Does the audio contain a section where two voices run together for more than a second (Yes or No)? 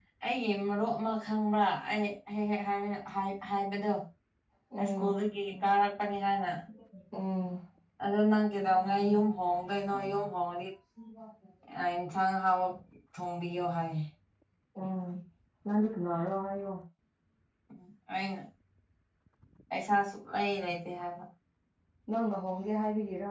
No